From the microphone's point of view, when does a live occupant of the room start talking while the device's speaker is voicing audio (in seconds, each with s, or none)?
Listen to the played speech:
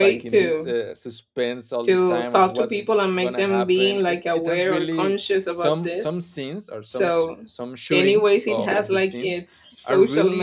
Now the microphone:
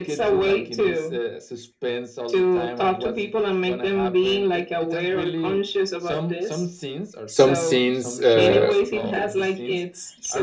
7.2 s